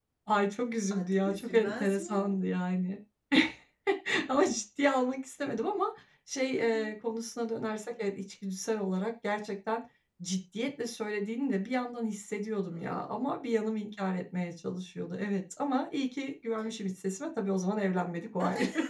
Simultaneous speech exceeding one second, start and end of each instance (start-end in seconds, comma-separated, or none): 1.0-2.2